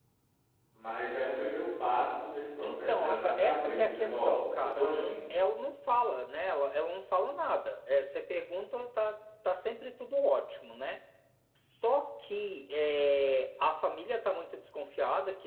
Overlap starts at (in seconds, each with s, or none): 2.6 s